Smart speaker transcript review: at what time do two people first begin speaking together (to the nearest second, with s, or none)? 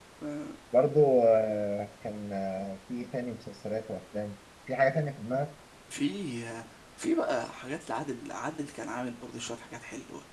none